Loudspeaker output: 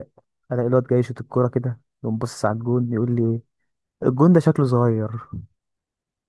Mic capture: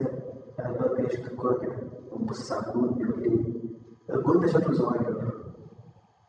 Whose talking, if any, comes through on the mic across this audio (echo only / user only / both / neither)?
echo only